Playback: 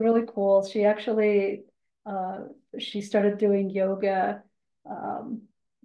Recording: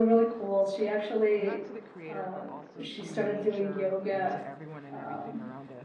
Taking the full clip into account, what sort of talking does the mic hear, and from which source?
both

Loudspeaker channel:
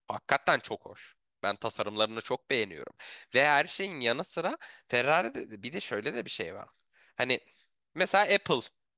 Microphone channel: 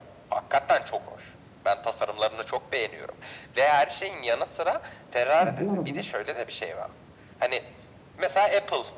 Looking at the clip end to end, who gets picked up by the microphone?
both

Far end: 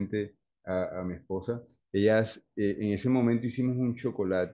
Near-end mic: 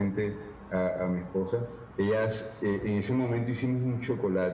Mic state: echo only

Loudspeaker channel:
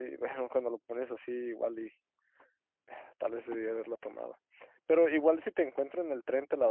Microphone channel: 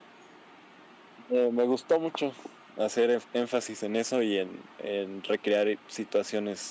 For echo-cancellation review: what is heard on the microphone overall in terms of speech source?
user only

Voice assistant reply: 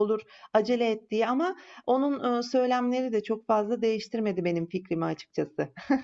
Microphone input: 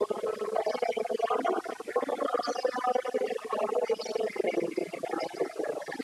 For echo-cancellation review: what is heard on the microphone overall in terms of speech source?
echo only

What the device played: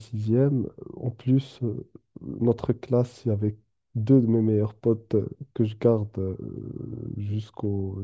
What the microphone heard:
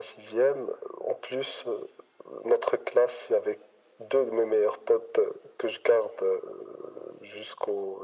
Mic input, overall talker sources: echo only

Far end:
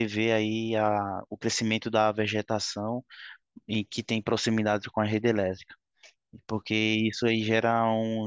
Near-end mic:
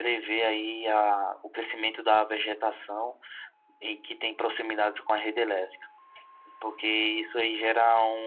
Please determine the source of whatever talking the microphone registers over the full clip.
echo only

